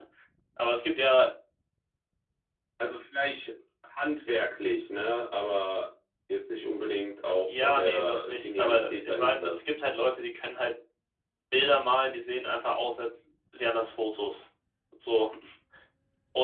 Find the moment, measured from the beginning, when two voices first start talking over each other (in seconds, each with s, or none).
7.5 s